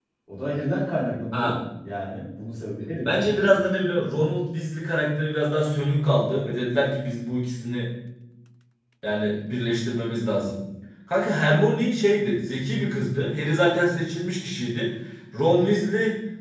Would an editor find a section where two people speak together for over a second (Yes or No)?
No